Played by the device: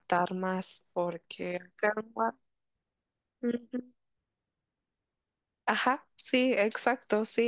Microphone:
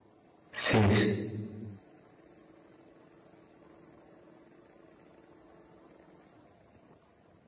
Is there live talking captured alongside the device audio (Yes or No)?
Yes